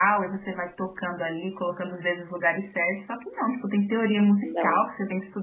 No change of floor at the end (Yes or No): Yes